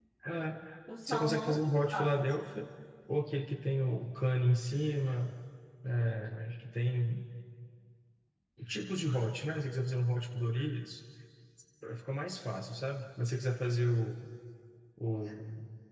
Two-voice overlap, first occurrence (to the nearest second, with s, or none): 1 s